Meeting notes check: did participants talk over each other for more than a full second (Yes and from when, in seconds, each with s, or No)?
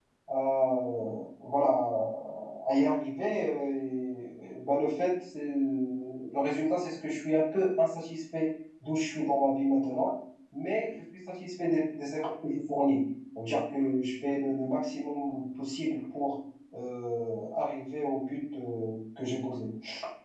No